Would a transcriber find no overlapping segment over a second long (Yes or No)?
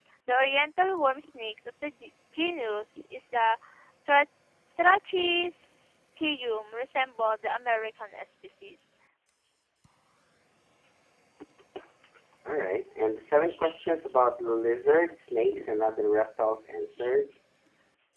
Yes